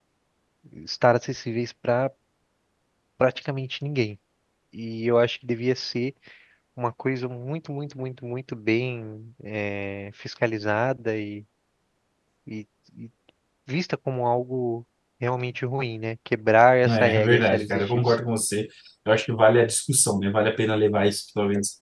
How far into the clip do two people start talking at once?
16.9 s

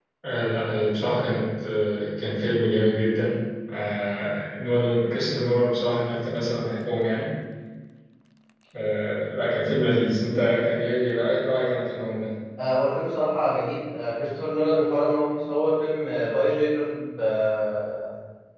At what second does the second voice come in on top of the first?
none

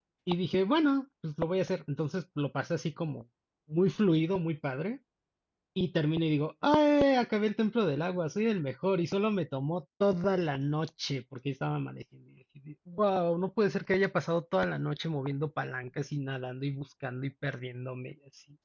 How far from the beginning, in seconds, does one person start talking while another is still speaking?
none

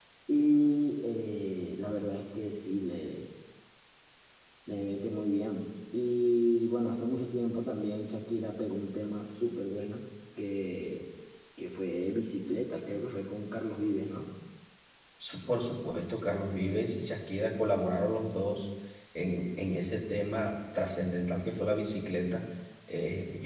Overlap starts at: none

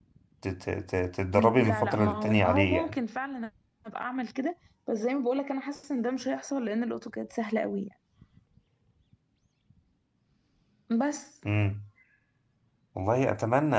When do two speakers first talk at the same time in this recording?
1.3 s

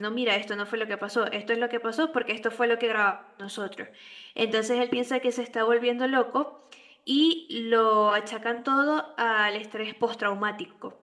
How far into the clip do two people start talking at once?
none

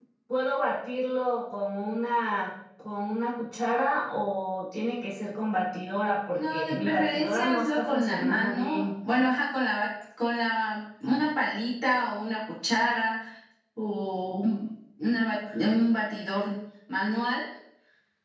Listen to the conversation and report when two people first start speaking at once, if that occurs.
6.3 s

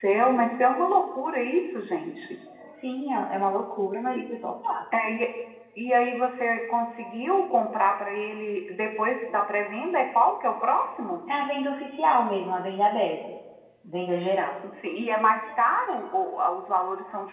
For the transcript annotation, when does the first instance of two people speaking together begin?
none

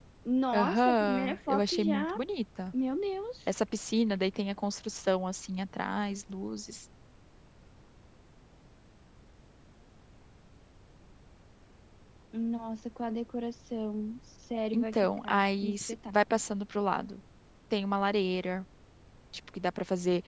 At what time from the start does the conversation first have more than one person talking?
0.5 s

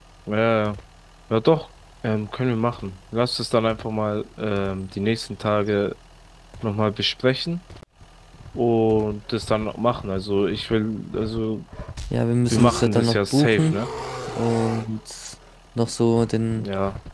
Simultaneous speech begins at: 12.5 s

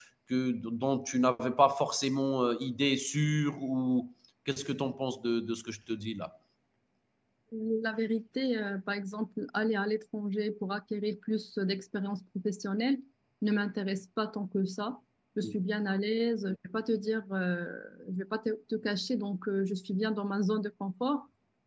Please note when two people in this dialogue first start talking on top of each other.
none

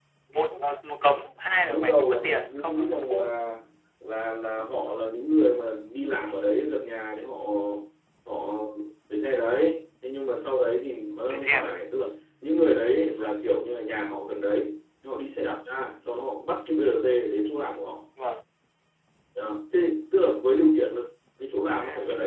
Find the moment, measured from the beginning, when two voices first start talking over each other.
1.7 s

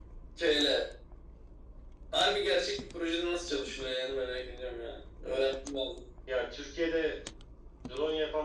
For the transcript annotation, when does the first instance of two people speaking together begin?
none

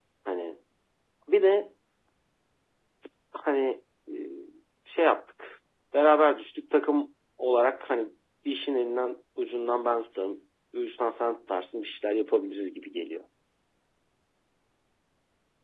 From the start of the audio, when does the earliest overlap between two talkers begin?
none

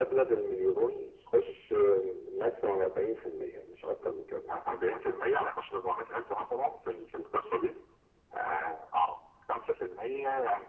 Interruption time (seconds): none

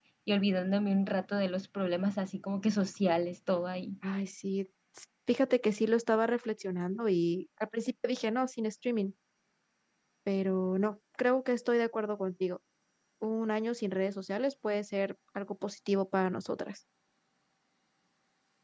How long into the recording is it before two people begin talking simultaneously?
none

